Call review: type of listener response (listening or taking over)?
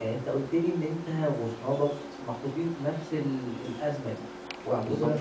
listening